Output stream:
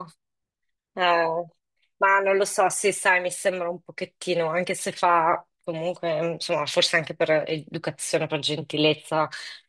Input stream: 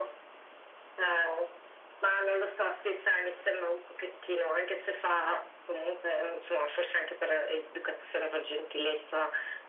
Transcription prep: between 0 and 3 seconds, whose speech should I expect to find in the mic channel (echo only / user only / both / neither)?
echo only